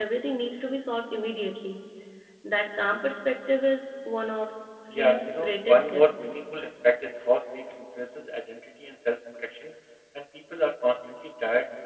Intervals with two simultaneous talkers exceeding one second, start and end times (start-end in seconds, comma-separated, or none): 4.9-6.3